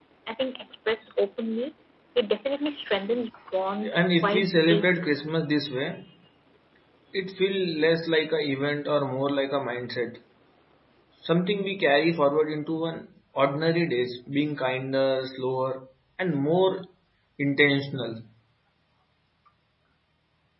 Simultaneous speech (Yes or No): Yes